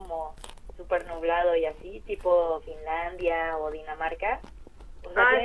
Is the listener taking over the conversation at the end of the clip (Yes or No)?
Yes